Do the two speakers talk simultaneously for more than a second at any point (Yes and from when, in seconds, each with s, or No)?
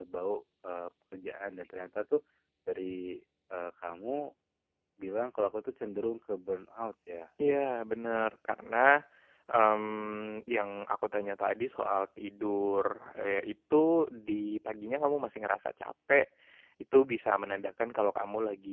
No